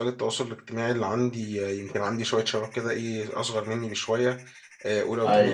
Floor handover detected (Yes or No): No